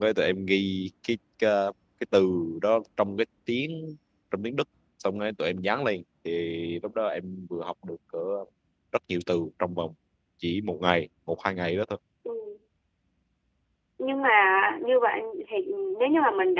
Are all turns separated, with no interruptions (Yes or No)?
Yes